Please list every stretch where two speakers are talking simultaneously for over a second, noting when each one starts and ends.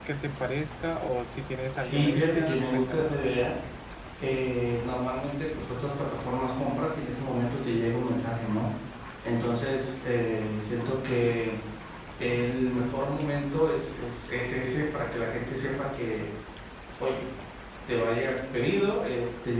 1.8-3.1

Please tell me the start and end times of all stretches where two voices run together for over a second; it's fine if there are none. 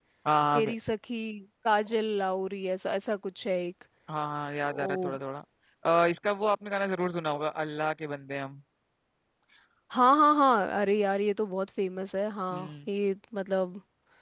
none

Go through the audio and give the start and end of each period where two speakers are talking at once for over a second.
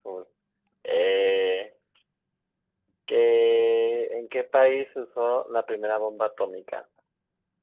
none

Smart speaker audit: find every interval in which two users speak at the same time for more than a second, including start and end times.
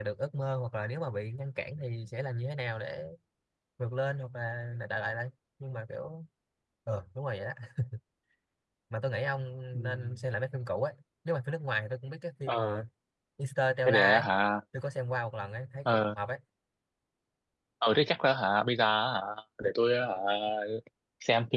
none

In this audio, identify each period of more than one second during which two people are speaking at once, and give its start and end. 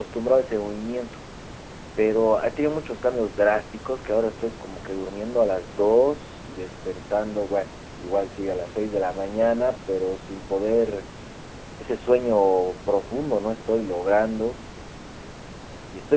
none

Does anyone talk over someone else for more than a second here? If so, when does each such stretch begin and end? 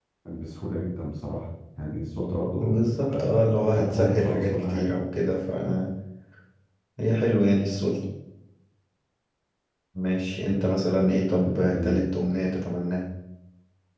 2.6-4.9, 10.6-12.1

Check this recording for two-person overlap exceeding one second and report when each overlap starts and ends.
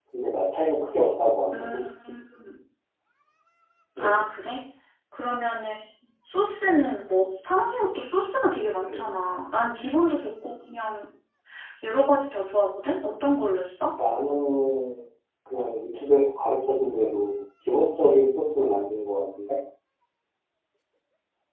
none

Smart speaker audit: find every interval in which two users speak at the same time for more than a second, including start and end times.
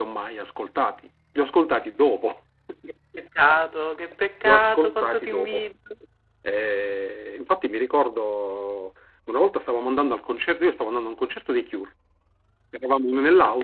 4.4-5.7

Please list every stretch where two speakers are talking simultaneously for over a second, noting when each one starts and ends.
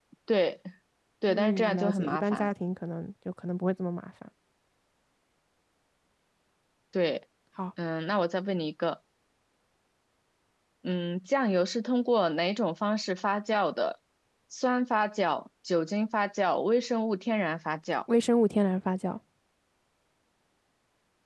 1.3-2.5

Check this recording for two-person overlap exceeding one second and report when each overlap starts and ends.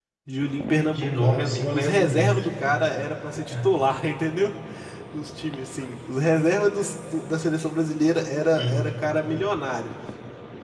0.8-2.4

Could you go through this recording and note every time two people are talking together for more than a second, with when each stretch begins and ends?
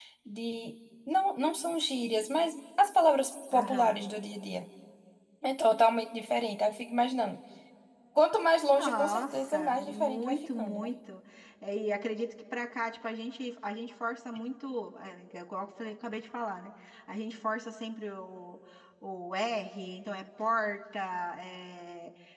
8.8-10.9

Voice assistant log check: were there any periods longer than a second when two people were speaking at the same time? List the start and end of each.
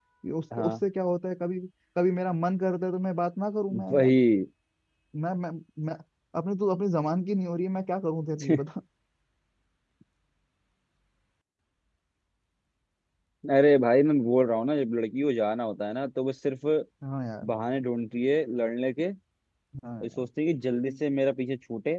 none

